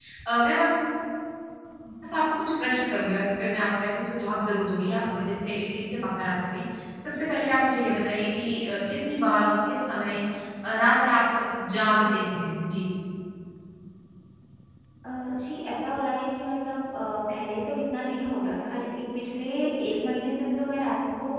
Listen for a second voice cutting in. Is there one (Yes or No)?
No